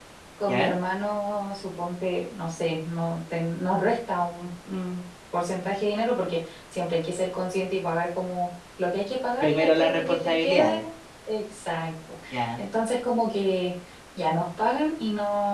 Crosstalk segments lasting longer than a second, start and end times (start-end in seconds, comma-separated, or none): 9.4-10.8